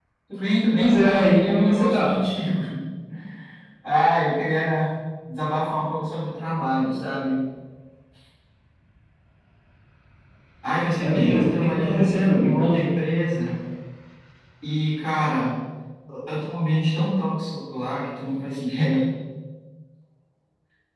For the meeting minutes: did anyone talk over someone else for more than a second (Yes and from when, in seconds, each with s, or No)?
Yes, from 0.8 s